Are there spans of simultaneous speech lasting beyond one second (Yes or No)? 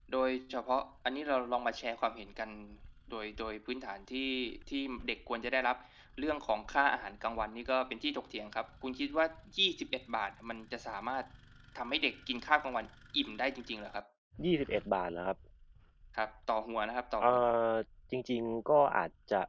No